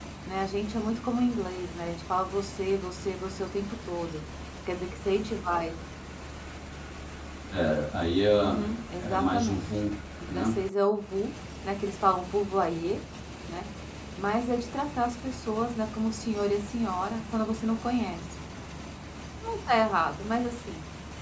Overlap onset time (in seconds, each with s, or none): 8.3 s